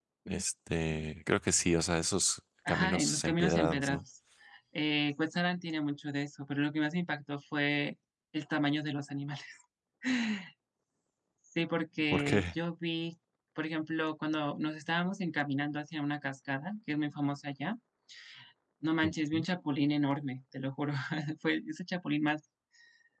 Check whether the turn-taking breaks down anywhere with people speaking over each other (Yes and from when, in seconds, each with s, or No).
Yes, from 2.7 s